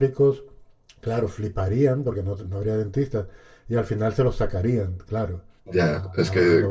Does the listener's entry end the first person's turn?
Yes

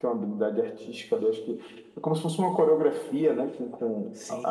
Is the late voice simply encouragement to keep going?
No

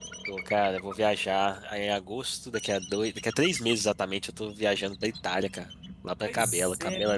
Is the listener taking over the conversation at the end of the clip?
Yes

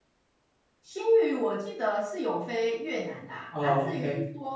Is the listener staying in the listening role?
Yes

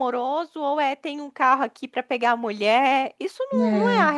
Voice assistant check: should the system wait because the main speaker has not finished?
Yes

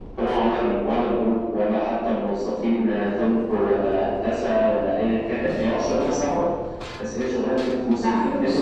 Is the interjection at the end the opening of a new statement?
Yes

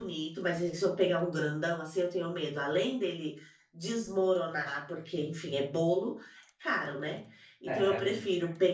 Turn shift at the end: No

